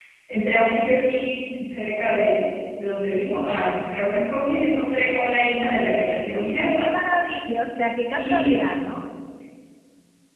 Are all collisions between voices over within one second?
Yes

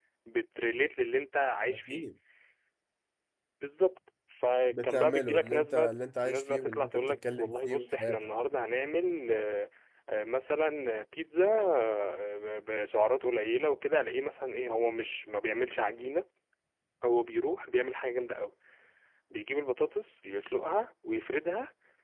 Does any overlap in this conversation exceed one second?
Yes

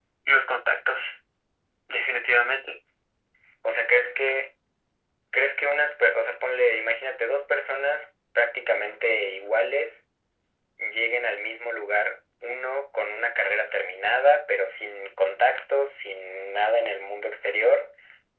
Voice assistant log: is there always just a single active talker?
Yes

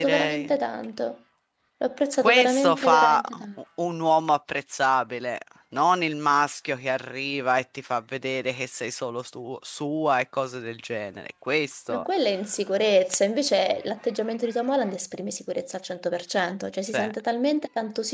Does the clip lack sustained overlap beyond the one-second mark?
No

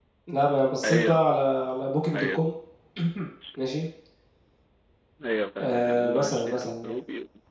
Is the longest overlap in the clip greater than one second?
Yes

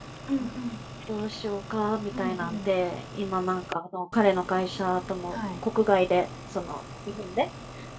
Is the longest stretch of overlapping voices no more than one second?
Yes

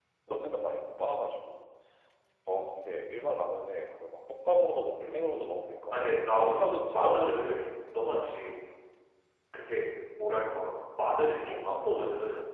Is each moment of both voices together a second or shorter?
No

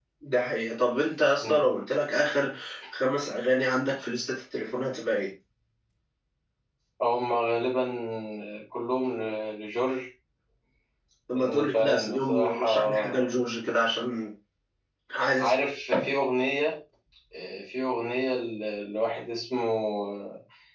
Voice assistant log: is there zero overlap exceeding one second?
No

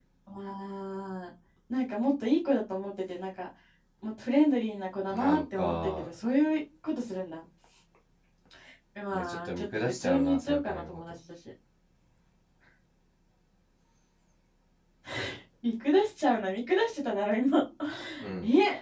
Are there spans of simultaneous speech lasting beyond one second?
Yes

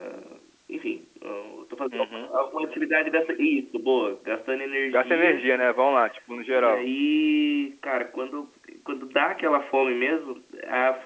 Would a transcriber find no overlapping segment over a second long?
Yes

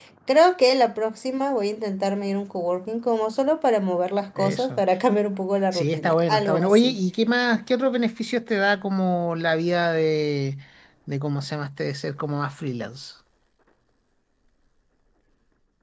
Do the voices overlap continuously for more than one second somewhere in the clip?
Yes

